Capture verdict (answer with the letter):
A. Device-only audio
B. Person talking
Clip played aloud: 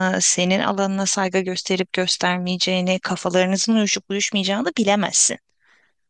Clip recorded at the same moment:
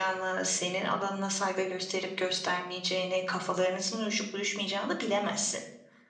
A